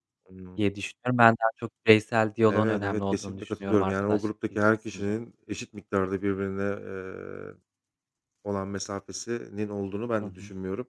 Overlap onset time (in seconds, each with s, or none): 2.5 s